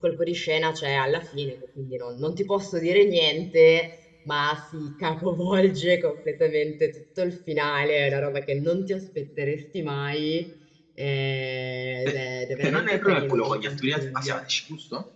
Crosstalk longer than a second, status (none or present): present